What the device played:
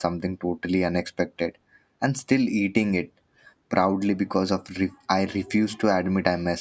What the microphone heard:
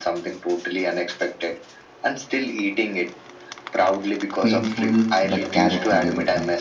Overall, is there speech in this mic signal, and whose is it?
both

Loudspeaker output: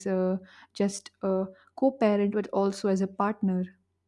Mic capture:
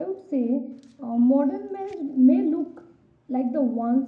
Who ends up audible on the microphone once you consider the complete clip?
user only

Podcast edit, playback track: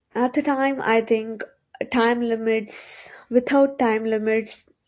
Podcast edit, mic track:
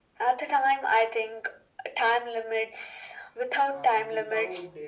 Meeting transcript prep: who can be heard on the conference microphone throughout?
both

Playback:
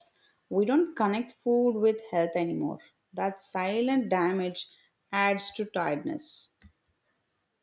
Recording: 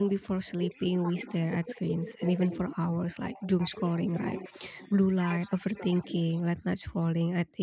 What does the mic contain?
both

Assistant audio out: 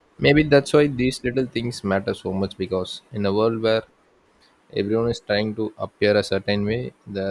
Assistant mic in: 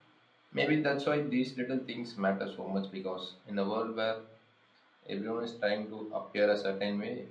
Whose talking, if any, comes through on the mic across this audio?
echo only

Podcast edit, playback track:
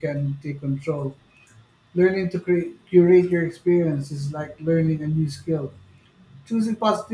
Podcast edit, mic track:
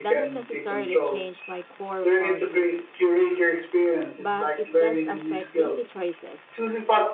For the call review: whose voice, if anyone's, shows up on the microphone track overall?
both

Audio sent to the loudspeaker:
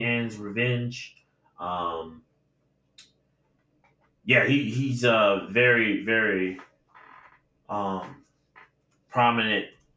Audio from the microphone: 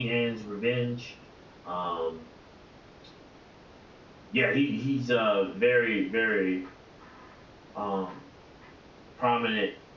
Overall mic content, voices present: echo only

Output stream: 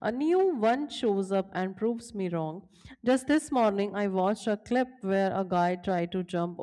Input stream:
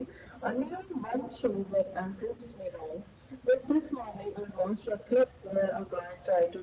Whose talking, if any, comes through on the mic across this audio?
echo only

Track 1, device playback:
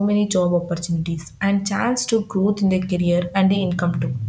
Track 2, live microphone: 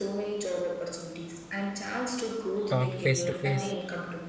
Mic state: both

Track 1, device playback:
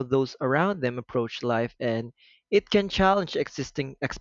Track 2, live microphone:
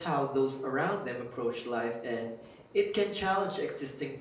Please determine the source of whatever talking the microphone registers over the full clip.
echo only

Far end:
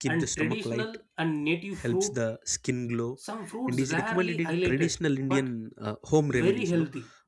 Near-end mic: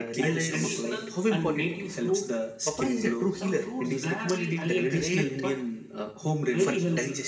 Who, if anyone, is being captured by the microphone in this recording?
both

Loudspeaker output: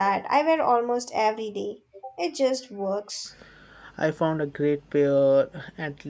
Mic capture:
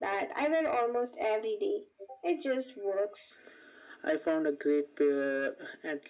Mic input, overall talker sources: echo only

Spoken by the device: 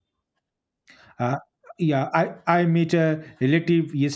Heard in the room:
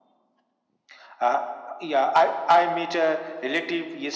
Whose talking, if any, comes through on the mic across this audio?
echo only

